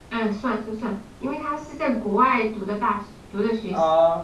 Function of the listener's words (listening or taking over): taking over